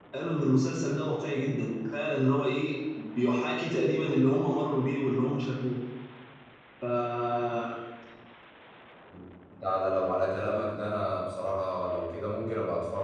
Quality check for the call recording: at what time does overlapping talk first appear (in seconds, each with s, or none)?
none